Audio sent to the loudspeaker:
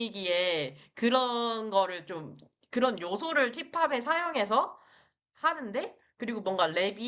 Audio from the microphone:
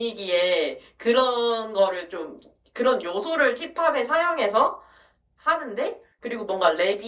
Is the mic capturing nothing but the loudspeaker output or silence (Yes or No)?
Yes